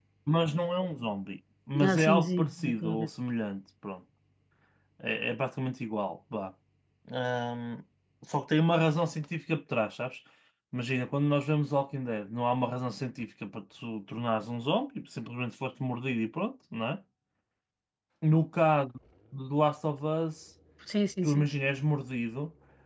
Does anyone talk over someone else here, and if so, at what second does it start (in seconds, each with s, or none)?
1.7 s